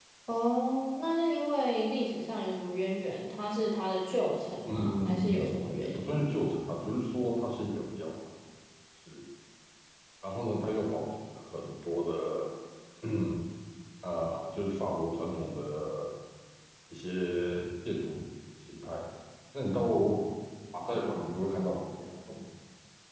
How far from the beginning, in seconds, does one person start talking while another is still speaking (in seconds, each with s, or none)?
4.6 s